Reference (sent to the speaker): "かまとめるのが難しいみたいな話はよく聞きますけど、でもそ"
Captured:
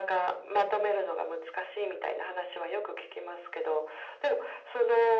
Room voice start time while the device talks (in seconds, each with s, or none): none